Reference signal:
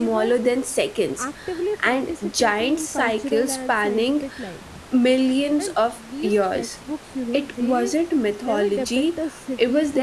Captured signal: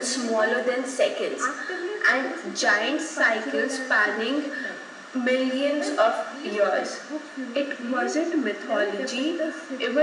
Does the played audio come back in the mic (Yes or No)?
Yes